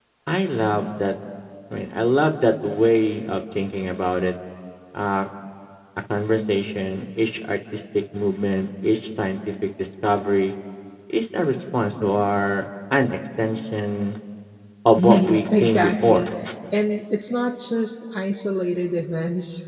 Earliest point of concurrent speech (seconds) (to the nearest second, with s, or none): 15 s